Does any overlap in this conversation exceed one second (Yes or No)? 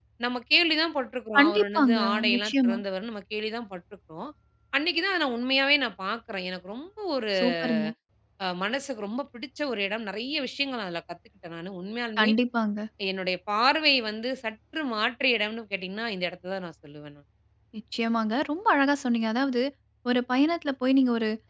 Yes